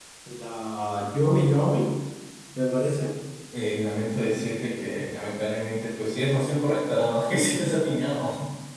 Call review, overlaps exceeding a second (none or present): none